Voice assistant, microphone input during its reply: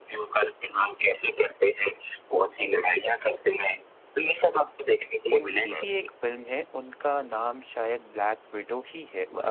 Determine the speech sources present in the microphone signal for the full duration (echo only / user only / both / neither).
both